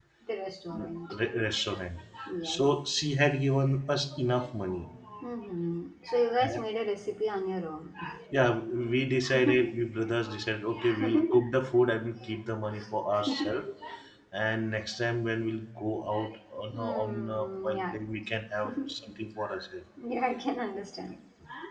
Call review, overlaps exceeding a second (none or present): present